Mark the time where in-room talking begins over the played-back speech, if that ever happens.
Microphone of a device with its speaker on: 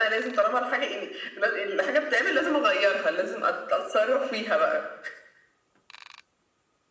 none

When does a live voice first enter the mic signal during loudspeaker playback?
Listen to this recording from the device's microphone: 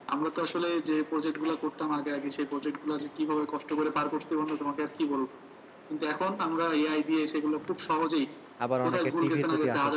9 s

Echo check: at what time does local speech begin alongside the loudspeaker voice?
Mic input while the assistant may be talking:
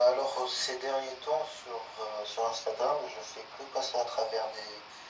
none

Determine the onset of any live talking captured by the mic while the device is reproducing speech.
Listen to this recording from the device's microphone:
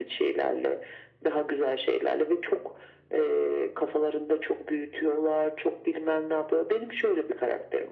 none

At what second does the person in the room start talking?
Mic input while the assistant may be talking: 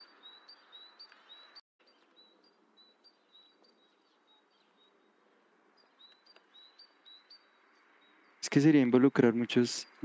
8 s

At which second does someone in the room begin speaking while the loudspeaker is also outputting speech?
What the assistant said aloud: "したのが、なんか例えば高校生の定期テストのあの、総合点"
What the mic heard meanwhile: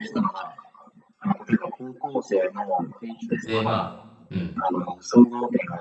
3 s

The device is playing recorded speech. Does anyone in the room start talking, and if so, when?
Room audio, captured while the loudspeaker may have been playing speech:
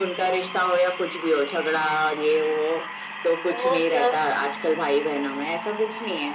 4 s

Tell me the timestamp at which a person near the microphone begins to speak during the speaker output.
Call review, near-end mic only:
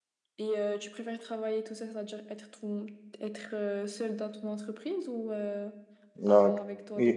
6 s

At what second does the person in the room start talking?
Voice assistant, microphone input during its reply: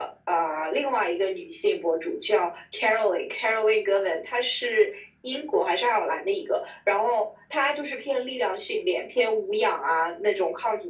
none

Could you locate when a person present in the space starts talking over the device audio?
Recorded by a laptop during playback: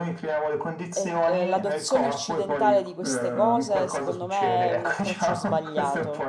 1 s

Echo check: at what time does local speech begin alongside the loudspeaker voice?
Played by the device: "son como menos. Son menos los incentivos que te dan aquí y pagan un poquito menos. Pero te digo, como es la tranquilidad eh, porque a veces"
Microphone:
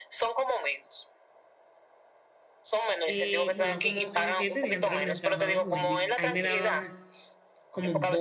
3 s

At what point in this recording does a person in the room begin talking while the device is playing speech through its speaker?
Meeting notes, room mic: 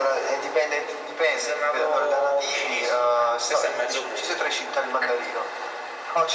none

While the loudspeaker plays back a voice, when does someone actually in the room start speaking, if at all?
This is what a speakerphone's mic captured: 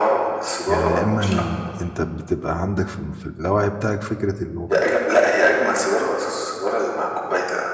1 s

